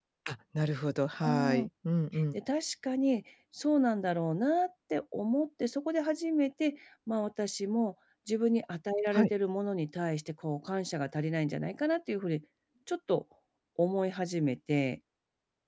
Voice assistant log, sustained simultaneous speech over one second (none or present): none